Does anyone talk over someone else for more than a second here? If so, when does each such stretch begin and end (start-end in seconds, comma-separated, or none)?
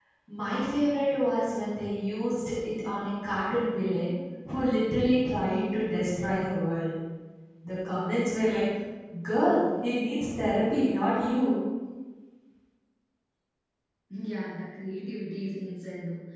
none